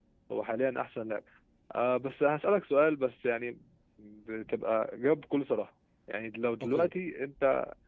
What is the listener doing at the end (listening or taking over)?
listening